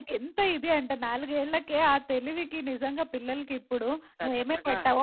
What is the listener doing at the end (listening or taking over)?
listening